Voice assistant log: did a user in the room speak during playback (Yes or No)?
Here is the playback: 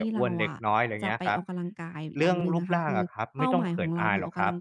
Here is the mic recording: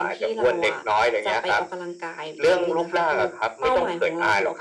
No